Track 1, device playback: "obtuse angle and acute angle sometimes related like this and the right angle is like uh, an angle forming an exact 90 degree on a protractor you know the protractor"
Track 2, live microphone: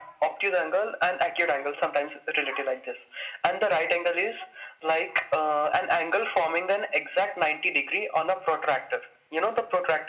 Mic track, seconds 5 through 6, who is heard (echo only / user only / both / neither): echo only